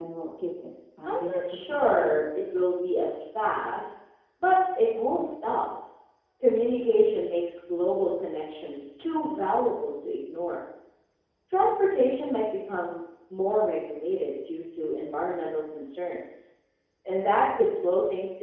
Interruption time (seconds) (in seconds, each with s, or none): 1.1 s